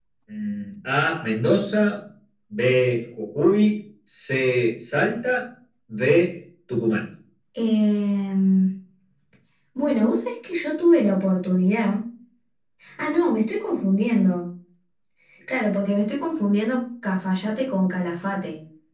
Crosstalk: none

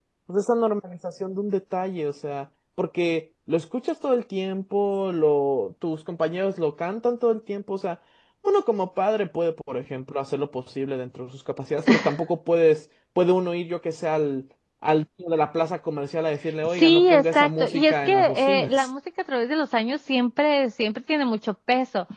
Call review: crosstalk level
present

